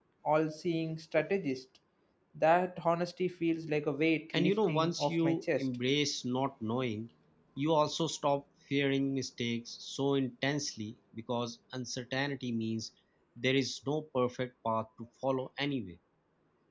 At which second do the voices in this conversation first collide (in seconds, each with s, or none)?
4.3 s